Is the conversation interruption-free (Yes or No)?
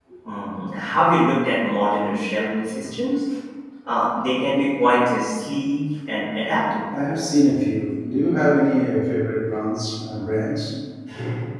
Yes